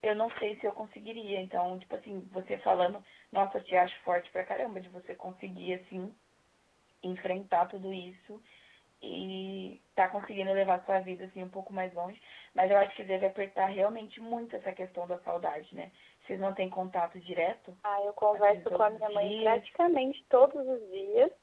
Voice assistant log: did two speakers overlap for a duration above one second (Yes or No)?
Yes